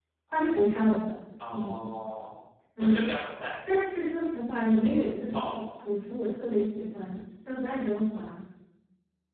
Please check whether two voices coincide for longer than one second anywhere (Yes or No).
No